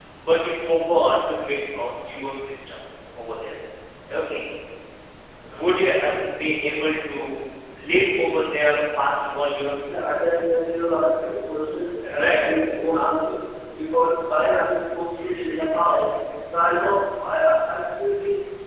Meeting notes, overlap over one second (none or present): none